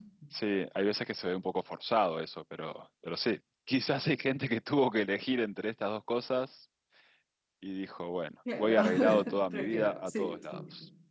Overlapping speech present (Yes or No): Yes